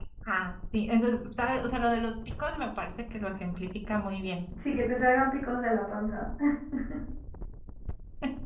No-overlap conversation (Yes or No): Yes